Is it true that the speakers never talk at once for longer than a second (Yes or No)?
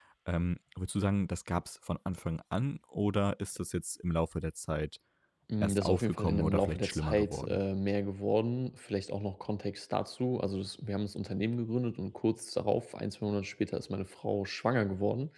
No